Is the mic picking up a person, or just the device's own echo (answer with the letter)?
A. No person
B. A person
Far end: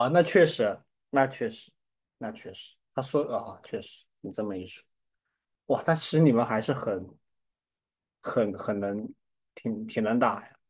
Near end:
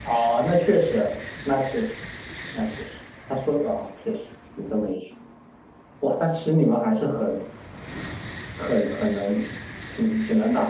A